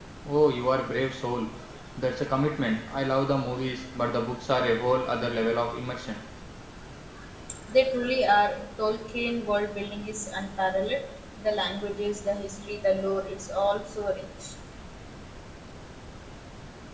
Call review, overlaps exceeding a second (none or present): none